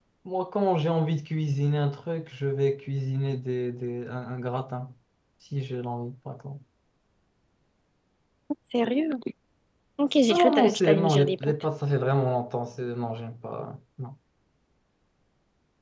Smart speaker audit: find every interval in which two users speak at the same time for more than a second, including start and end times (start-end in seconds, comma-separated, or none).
10.3-11.5